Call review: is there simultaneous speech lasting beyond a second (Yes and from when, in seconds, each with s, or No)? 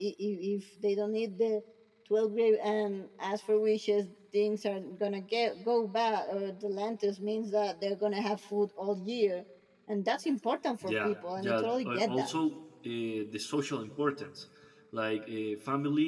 Yes, from 10.8 s